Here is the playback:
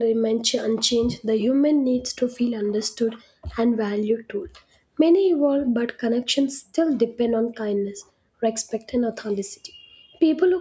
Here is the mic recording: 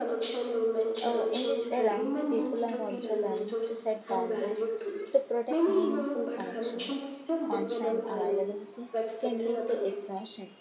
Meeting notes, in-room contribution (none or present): present